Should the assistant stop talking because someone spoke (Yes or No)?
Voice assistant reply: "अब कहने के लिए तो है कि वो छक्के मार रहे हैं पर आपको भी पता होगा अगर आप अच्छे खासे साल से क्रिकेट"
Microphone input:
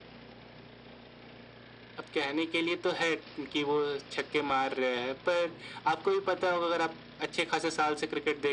No